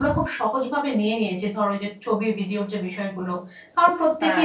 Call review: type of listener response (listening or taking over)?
listening